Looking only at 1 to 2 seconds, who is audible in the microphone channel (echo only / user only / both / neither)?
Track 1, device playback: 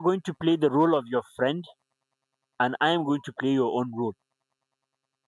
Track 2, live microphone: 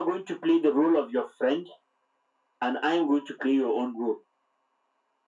echo only